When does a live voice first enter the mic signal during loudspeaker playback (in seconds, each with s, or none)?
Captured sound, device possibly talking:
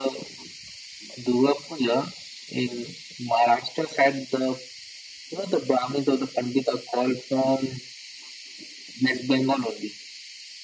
none